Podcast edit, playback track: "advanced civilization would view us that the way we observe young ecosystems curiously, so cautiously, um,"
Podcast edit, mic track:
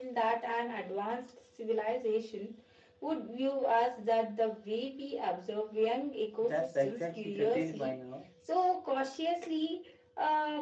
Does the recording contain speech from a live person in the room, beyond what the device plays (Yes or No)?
Yes